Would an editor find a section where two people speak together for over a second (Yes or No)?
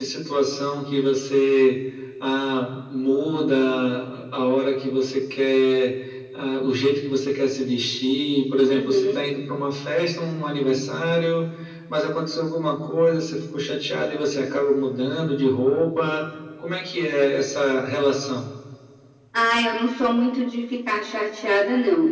No